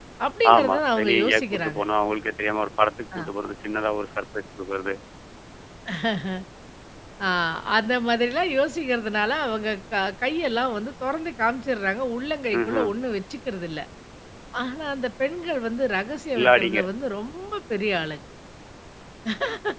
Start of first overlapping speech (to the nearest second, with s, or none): 1 s